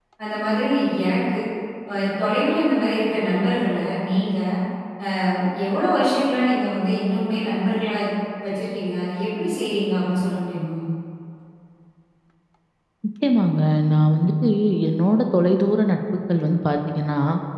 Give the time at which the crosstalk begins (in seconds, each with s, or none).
none